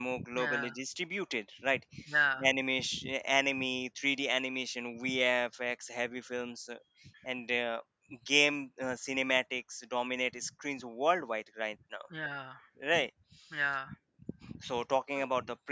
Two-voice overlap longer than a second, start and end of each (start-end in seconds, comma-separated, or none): none